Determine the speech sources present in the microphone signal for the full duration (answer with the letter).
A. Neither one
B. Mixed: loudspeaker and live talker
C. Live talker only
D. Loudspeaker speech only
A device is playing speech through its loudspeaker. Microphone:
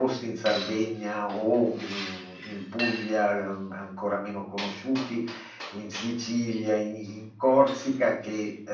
D